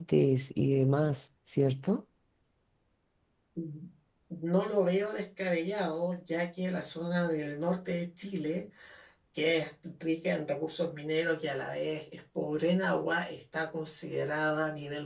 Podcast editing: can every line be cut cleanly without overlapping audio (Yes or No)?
Yes